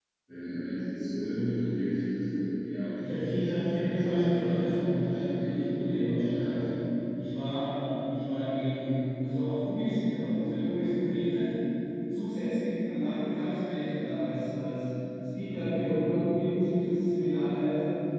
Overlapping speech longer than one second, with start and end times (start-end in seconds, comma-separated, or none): 3.0-5.6